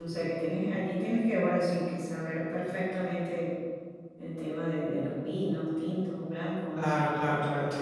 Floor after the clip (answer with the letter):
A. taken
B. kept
A